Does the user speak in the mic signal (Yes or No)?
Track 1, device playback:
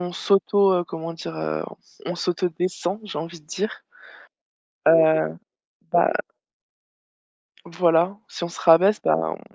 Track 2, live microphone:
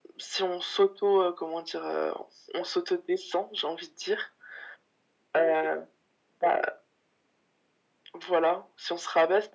No